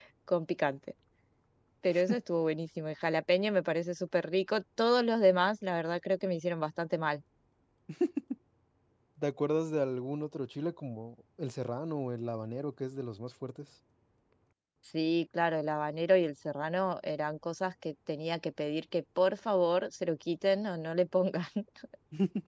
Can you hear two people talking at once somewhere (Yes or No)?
No